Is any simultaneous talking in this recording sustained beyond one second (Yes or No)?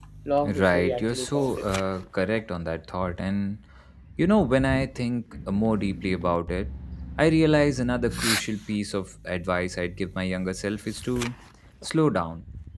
Yes